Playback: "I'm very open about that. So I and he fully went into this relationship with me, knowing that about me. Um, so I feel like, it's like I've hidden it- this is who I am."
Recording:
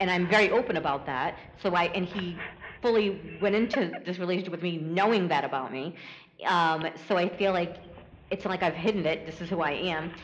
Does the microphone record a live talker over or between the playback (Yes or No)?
No